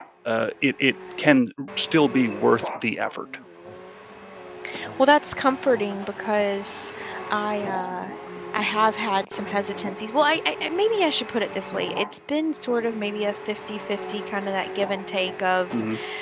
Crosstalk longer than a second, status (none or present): none